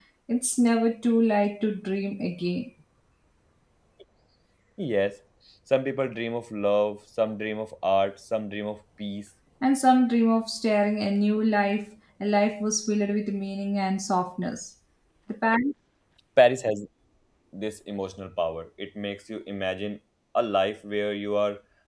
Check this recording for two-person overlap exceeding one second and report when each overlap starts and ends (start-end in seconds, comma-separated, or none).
none